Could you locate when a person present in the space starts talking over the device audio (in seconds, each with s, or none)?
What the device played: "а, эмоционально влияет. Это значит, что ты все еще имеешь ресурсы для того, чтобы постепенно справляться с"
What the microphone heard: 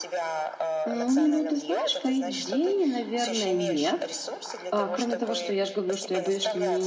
0.9 s